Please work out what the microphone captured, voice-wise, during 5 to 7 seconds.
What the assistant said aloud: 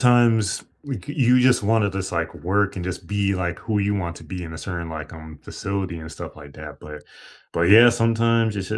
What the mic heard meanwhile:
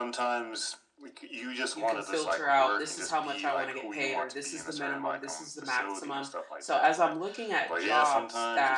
both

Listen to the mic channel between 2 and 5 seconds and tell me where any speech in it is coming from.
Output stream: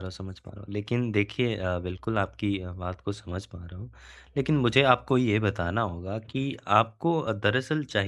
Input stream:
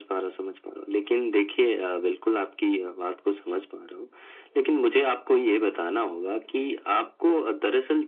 echo only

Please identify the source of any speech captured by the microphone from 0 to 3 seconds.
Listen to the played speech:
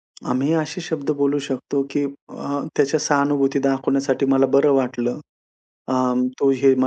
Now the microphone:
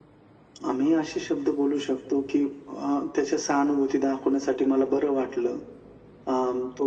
echo only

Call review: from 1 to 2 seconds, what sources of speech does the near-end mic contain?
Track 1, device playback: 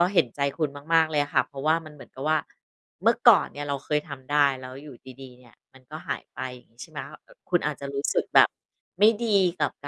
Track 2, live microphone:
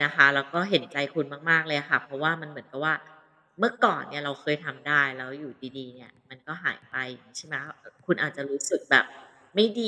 echo only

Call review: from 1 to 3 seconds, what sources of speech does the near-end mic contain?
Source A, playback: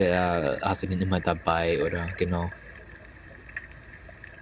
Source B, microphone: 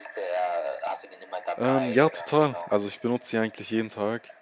both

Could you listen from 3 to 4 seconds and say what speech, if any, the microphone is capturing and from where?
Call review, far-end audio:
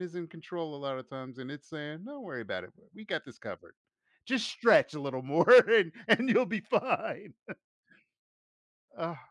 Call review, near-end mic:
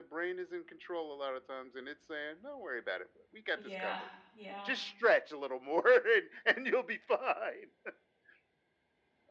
both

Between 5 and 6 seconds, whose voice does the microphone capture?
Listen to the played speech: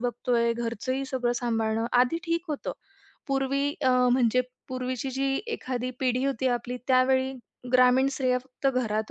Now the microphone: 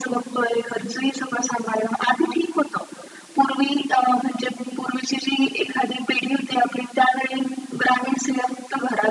echo only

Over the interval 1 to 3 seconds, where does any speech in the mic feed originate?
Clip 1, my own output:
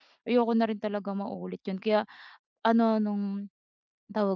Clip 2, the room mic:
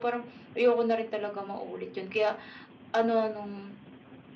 echo only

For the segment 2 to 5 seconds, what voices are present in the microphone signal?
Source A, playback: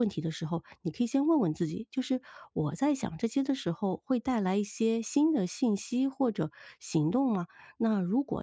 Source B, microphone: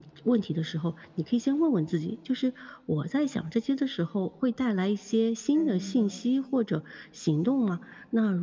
echo only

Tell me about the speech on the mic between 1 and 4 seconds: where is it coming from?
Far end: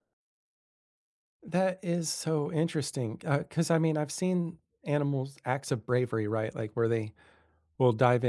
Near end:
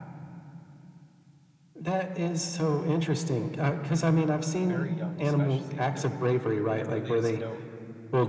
echo only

